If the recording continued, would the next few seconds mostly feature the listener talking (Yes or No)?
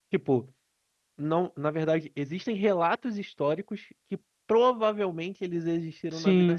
Yes